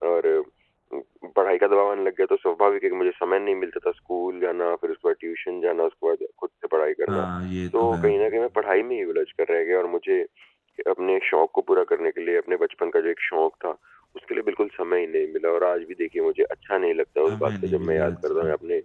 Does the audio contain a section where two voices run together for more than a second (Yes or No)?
Yes